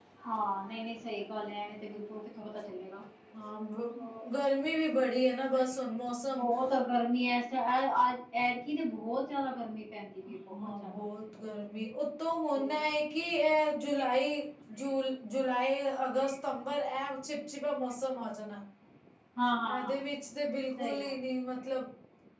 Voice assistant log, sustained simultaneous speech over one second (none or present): none